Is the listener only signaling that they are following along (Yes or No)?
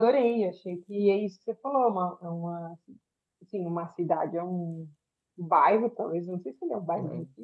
Yes